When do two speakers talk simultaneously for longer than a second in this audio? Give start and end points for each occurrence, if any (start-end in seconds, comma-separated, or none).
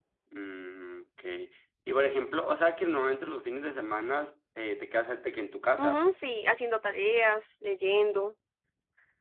none